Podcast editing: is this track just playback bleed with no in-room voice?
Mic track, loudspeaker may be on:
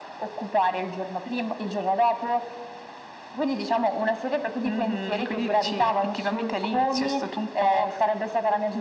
Yes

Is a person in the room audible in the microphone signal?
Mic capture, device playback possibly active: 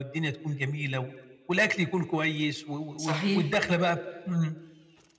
Yes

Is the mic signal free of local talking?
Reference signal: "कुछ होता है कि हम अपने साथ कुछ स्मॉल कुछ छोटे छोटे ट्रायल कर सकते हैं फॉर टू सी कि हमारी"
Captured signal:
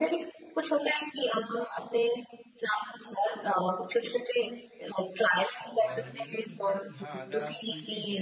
No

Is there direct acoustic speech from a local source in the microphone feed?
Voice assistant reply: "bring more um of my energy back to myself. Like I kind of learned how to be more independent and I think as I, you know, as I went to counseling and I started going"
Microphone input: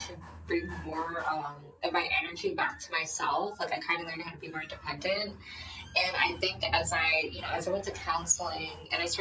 No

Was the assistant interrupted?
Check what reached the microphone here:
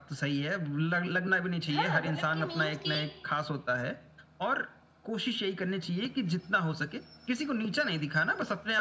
Yes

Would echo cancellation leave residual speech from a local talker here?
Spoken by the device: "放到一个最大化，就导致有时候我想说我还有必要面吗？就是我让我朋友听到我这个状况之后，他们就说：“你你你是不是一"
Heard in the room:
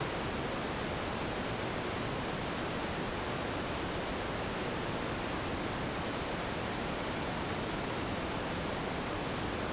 No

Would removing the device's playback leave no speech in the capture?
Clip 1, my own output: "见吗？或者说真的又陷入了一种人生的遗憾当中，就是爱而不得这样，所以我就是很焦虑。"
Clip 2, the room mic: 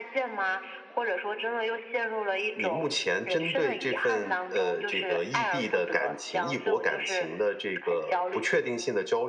No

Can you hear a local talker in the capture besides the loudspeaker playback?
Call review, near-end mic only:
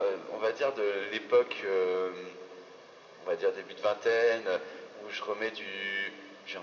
No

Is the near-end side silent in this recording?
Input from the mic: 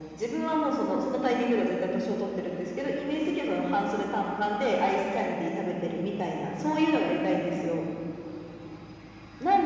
Yes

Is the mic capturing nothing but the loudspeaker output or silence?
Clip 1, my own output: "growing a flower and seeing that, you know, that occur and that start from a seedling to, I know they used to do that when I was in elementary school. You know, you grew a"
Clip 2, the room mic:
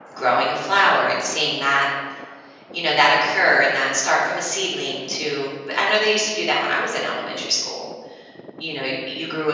Yes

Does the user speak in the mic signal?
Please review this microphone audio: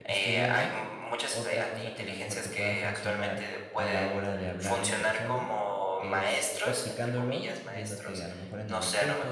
Yes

